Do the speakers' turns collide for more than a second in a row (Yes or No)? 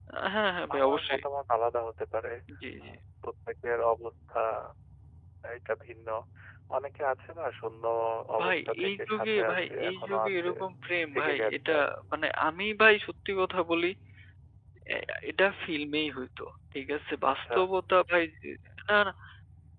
Yes